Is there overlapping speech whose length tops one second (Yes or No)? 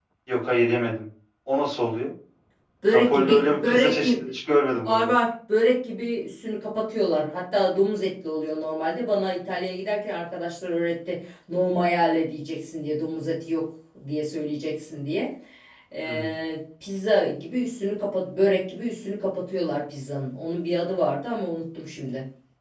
Yes